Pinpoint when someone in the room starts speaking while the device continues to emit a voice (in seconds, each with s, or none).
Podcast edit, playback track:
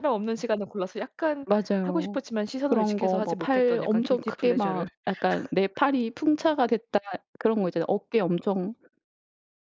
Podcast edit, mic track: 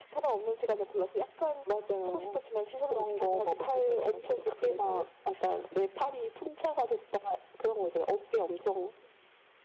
none